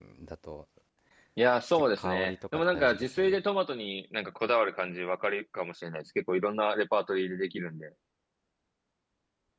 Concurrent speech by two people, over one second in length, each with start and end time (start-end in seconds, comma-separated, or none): 2.0-3.4